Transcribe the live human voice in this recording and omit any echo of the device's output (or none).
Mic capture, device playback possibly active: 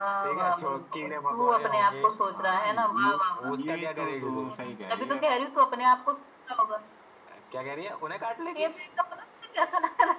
हाँ ये ये तो तू सही कह रही है